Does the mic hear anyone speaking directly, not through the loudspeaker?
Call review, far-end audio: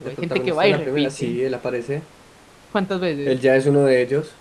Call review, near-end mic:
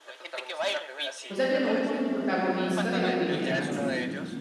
Yes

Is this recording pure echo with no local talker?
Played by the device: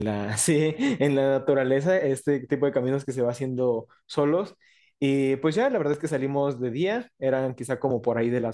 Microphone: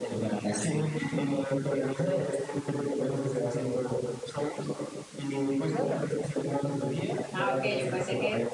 No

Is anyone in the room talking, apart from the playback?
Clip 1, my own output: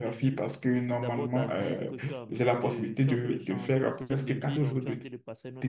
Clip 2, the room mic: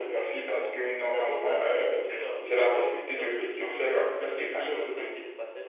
No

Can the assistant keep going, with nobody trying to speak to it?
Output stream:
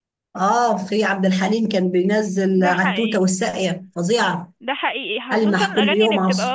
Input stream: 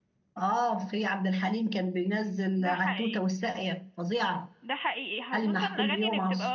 Yes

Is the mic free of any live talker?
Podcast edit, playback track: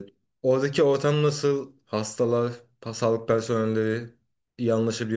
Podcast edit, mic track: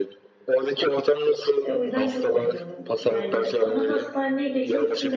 No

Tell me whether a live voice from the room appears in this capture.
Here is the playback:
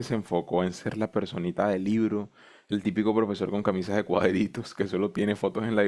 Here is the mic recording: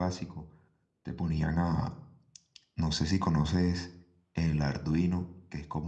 Yes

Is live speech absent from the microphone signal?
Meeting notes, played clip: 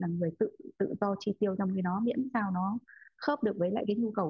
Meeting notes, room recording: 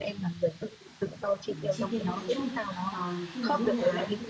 No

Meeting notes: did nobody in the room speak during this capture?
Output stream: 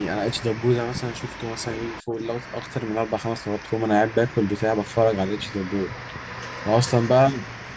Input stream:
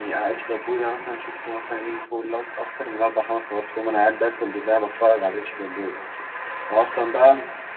Yes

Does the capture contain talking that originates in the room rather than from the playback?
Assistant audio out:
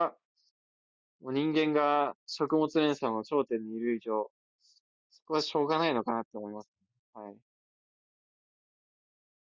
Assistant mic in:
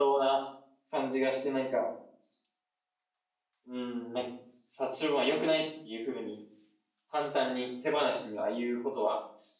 Yes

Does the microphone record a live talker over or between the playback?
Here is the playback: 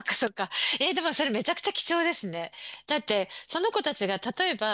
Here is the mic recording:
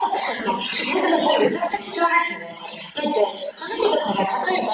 No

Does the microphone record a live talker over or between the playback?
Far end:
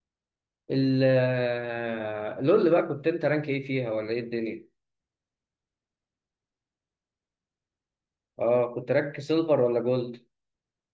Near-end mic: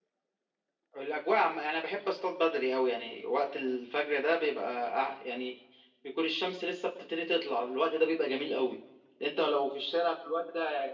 Yes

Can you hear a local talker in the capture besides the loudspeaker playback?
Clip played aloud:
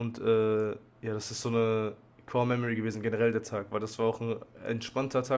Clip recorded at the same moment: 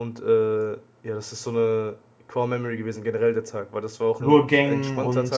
Yes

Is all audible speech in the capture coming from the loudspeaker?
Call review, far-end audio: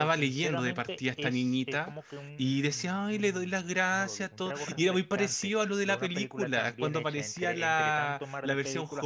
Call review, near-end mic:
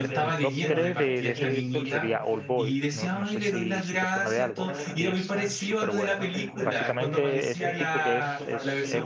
No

